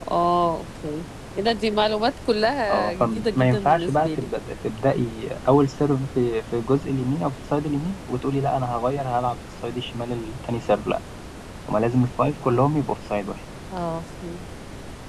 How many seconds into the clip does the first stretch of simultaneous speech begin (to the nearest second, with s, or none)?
3 s